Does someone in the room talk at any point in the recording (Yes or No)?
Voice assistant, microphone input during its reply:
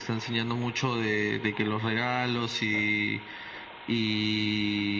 No